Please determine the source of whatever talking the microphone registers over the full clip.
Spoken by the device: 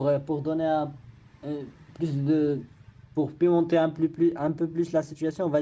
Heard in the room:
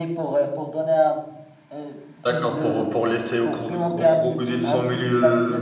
both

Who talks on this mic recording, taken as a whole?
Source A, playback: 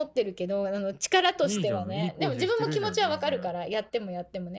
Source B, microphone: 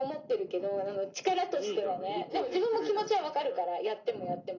echo only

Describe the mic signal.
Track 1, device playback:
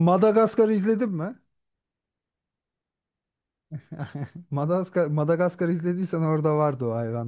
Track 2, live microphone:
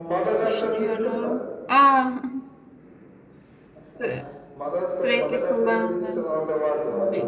both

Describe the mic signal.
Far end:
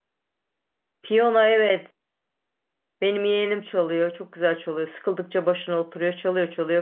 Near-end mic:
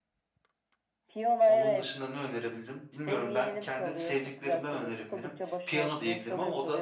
both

